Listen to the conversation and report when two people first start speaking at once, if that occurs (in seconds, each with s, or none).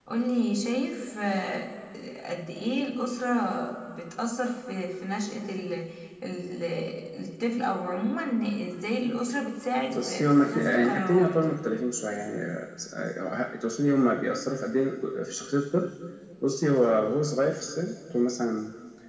9.9 s